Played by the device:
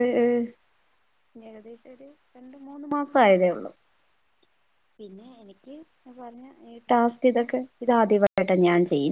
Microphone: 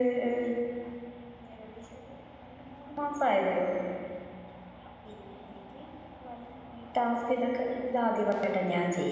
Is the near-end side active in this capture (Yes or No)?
No